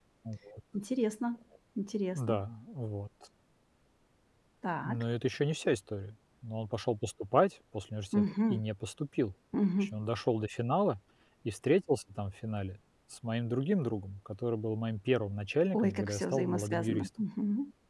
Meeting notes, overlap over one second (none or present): present